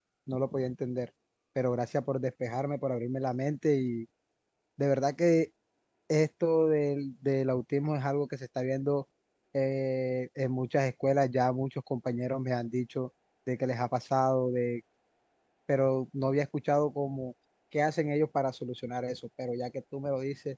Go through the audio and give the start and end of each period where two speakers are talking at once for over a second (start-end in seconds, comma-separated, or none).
none